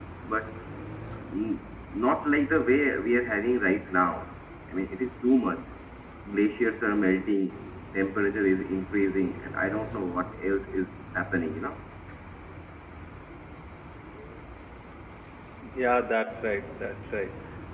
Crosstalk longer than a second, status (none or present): none